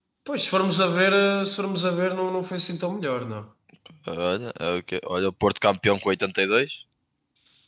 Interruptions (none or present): none